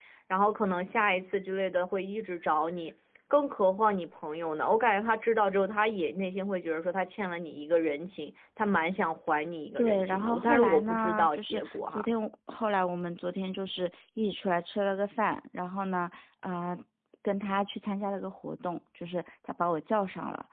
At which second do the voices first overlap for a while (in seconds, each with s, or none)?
9.8 s